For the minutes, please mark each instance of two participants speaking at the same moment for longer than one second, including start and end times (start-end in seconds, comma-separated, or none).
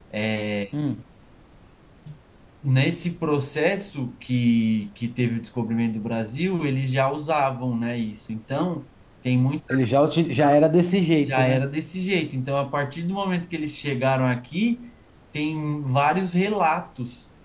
none